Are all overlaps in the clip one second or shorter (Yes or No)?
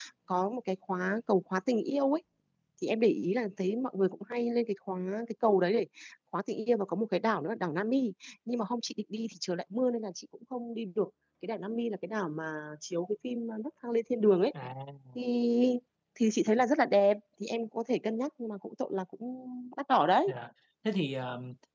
Yes